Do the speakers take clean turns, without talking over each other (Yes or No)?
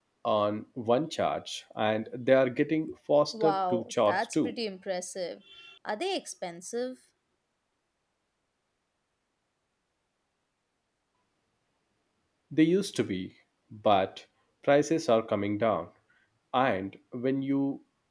No